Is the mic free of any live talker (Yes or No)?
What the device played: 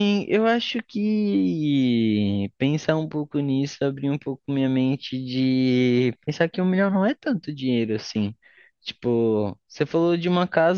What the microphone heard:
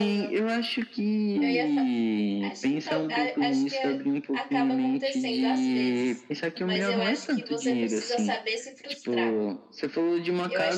No